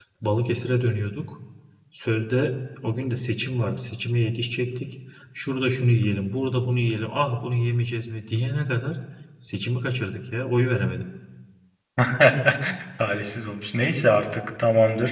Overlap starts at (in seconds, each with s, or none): none